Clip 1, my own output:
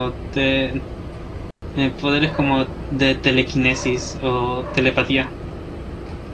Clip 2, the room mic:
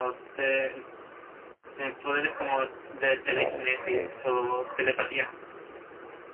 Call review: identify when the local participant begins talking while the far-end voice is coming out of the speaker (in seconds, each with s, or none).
3.3 s